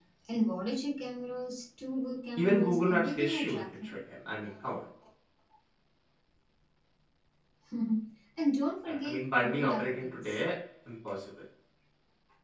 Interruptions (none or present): present